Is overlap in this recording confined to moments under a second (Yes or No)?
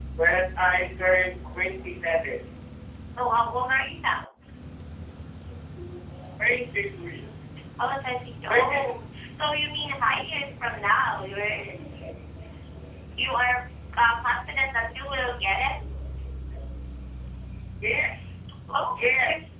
Yes